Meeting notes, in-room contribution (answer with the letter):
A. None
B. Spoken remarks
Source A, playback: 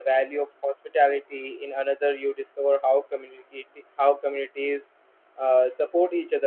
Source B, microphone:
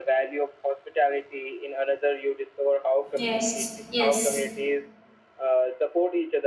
B